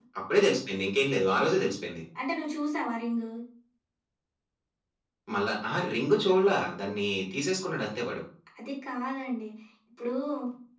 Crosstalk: none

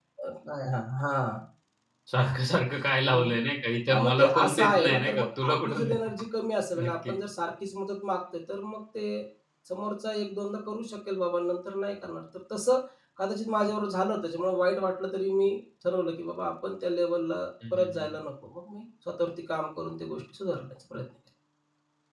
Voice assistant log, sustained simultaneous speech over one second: present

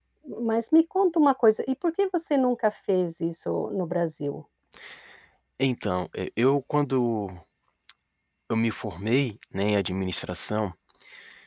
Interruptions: none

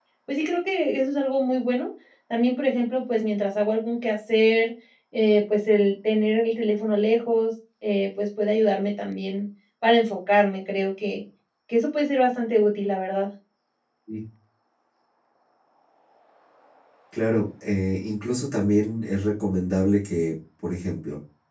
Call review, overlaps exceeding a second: none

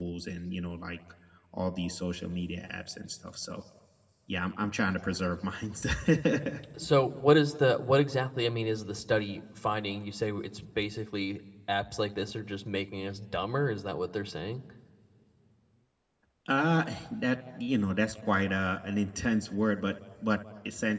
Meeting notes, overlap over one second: none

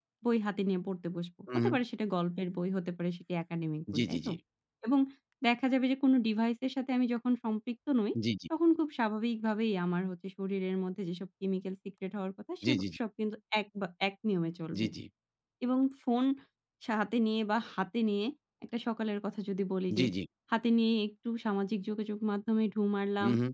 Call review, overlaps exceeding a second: none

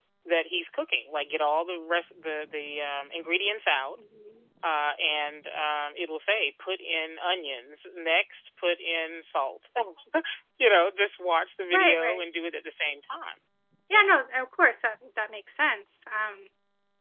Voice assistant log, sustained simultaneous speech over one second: none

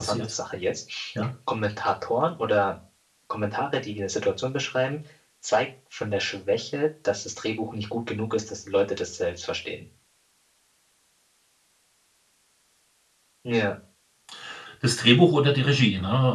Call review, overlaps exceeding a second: none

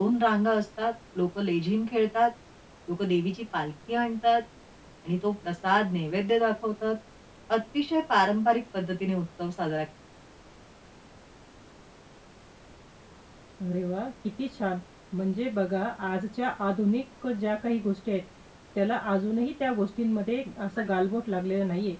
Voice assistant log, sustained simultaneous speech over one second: none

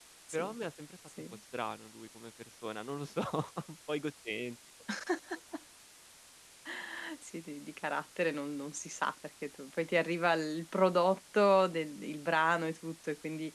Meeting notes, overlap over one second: none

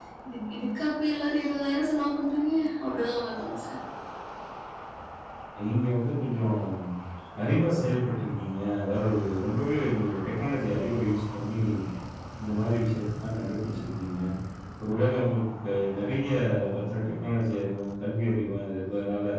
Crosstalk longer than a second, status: none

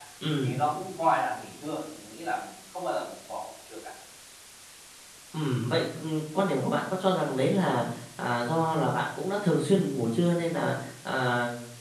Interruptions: none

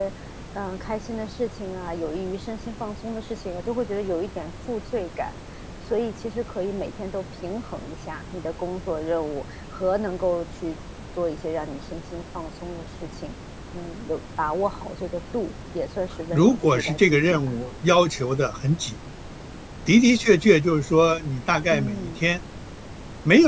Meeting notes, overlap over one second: present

